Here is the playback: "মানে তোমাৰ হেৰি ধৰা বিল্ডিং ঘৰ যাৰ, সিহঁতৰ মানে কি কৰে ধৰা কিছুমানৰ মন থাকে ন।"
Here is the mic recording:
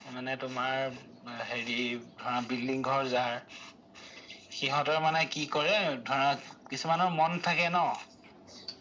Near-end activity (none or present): none